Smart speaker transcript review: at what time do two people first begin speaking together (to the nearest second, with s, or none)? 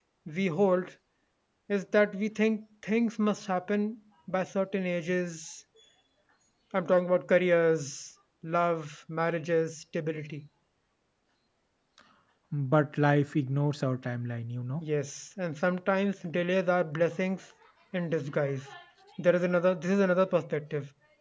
none